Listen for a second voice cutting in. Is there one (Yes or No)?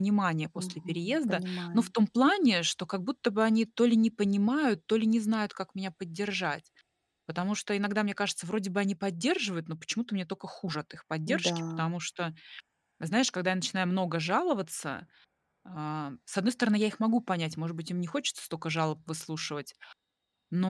Yes